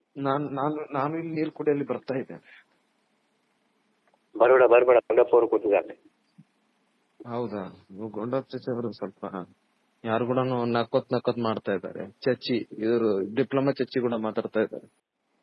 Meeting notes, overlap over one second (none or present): none